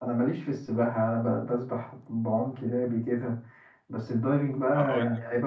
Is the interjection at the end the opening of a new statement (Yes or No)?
No